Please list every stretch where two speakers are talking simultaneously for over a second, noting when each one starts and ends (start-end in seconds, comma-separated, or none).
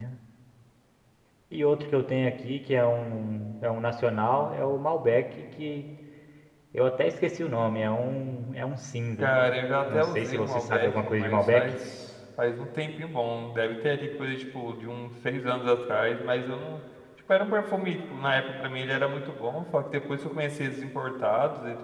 9.9-11.7